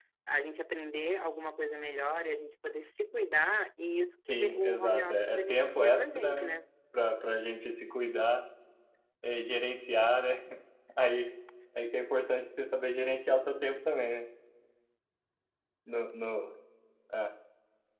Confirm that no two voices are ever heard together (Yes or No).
No